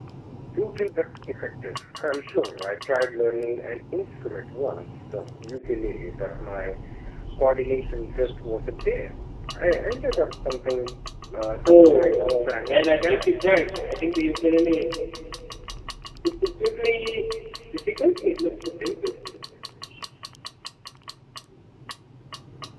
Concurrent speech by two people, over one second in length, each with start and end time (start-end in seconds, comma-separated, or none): 11.6-13.3